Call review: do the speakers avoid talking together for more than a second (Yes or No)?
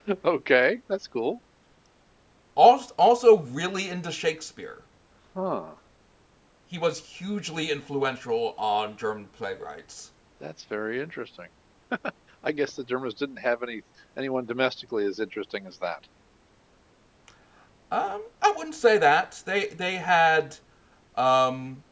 Yes